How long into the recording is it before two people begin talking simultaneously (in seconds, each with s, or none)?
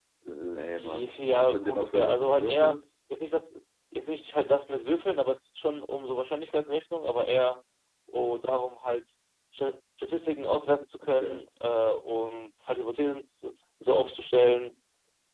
0.7 s